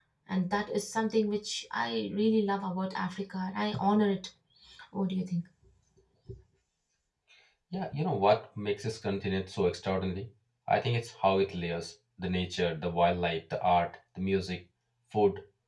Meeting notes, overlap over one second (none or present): none